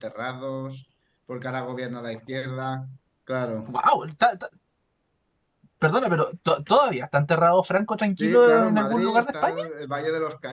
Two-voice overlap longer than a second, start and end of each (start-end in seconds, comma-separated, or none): 8.2-9.4